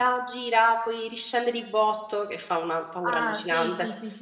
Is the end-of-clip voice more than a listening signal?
Yes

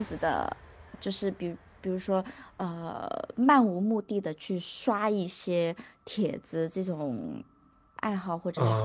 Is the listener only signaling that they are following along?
No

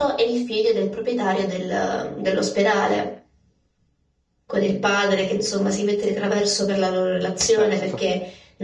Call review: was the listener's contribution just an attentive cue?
Yes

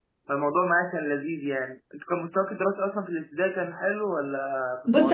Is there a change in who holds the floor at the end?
Yes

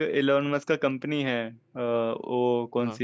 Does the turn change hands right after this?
No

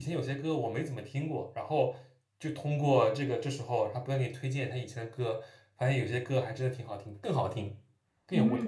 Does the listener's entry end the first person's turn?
Yes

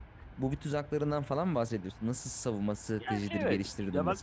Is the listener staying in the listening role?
No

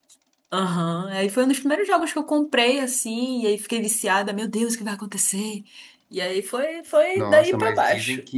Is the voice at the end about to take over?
Yes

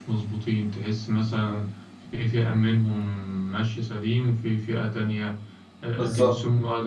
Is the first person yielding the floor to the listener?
No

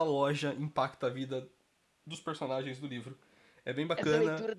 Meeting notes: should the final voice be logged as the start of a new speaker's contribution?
Yes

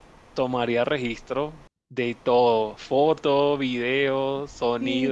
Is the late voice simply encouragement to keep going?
No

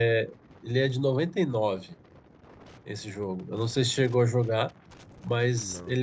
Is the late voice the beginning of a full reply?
No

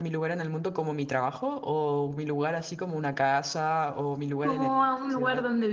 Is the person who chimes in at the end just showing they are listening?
No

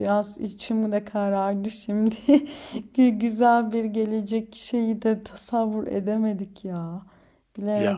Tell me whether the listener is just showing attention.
Yes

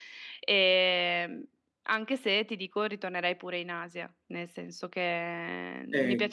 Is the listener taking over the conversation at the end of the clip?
Yes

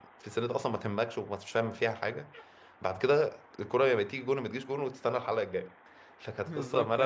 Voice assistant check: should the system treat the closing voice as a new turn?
Yes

